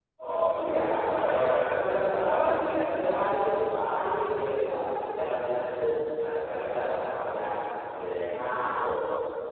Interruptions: present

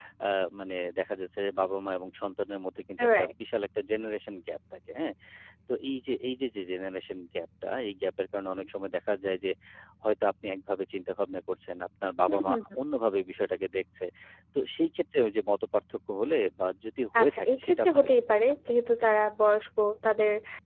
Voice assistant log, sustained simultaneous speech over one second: present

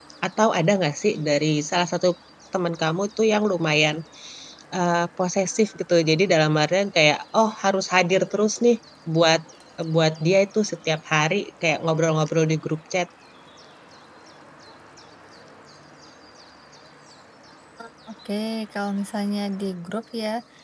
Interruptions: none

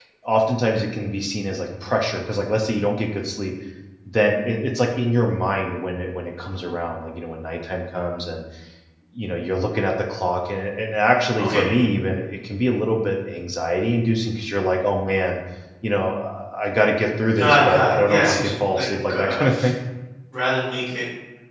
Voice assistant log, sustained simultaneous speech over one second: present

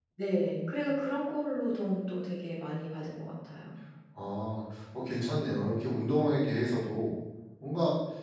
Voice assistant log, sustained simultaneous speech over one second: none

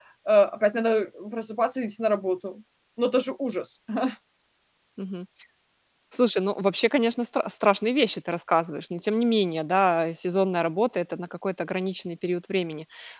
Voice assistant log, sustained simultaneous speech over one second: none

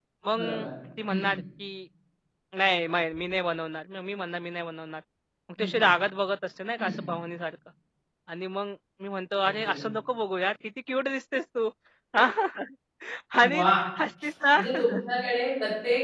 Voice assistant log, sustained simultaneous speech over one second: none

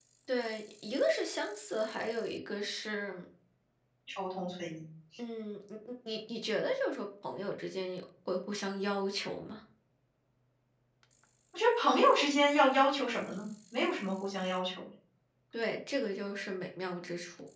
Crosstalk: none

